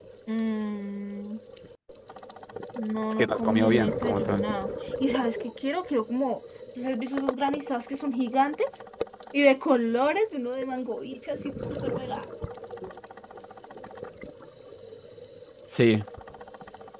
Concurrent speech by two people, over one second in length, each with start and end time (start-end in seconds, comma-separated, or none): 3.1-4.4